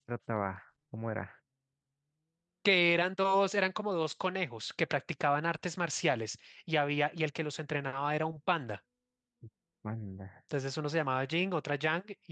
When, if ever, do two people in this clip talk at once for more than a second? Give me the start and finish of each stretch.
none

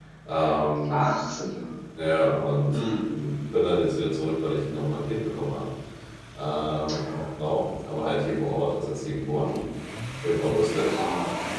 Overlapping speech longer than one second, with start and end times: none

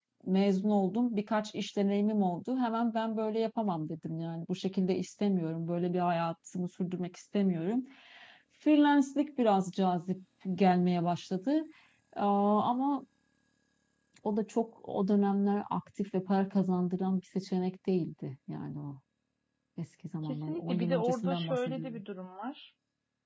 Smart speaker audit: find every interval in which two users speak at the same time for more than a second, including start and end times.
20.2-22.0

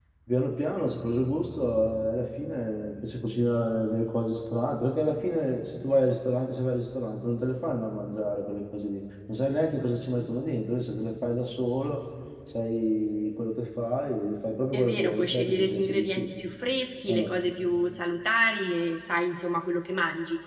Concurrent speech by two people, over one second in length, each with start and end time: 14.7-16.3

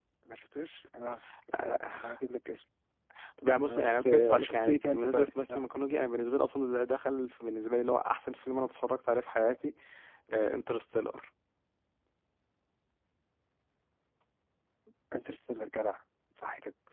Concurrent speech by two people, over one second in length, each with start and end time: 3.6-5.6

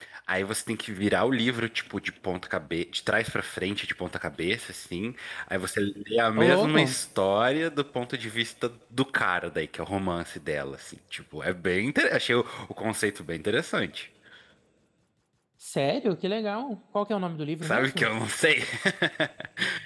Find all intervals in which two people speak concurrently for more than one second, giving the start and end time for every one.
none

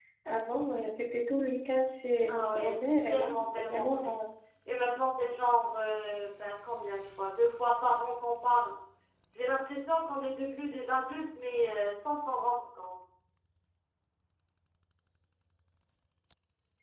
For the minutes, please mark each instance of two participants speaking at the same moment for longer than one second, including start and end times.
2.3-4.1

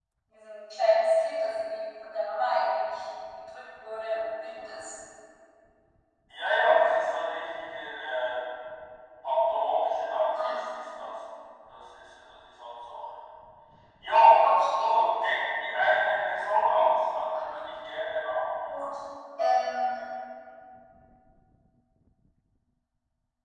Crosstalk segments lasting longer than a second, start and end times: none

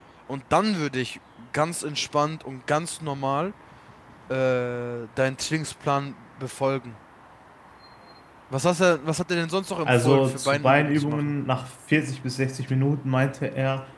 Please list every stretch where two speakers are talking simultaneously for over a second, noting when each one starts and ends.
9.8-11.3

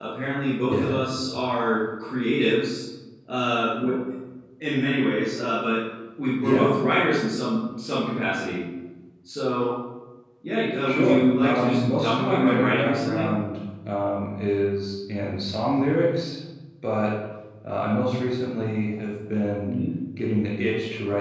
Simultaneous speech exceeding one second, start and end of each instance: 10.8-13.3

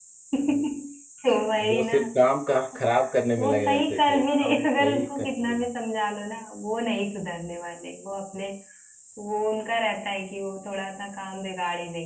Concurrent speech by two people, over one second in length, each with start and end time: 3.4-5.7

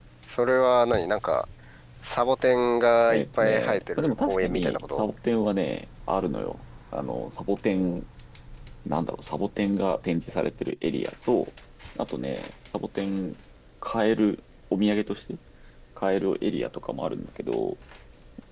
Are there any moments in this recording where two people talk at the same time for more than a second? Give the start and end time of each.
3.1-5.0

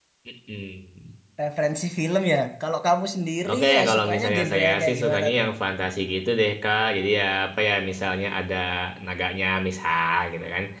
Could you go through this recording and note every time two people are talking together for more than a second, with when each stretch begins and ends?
3.5-5.5

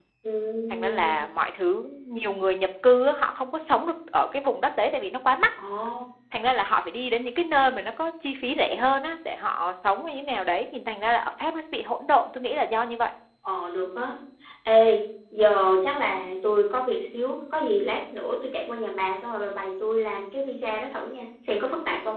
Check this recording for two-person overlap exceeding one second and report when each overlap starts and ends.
none

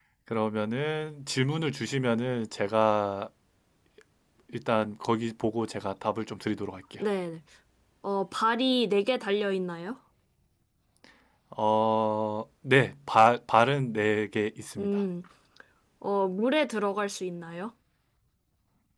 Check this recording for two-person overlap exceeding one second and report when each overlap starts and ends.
none

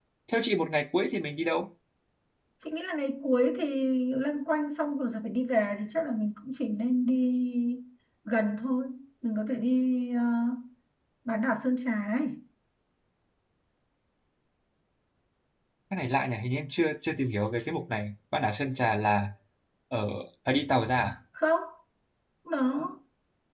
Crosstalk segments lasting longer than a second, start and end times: none

